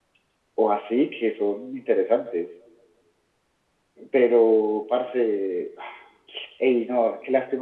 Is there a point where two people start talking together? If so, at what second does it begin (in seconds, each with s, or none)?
none